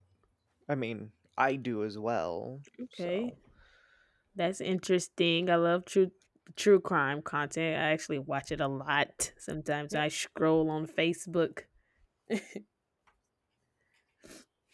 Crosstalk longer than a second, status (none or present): none